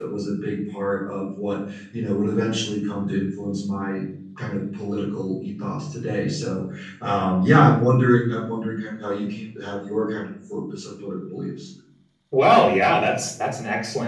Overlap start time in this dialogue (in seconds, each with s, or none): none